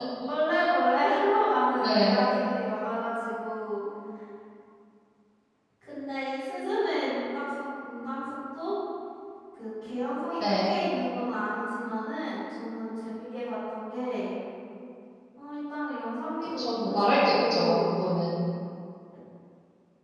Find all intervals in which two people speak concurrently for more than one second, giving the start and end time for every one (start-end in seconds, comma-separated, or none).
16.6-17.9